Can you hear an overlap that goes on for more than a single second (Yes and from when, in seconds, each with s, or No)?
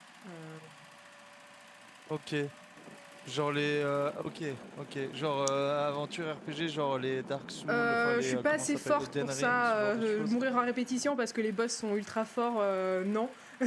Yes, from 7.7 s